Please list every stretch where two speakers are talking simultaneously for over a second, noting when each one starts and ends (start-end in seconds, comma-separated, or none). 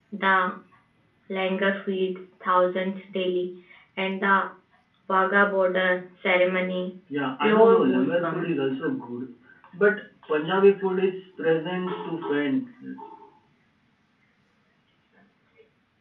7.4-8.7